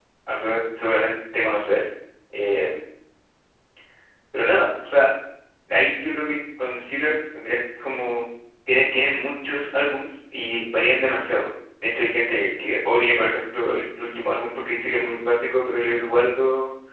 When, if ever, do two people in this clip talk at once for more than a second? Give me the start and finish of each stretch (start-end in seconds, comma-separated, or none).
none